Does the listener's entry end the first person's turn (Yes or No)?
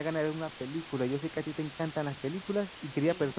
No